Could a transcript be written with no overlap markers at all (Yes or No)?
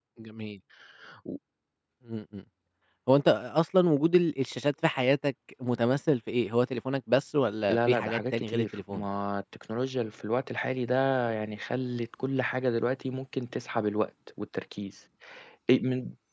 No